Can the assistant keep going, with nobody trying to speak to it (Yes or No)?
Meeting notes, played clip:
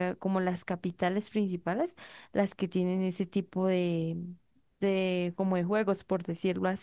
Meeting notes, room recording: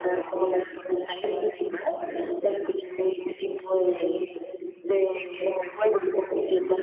Yes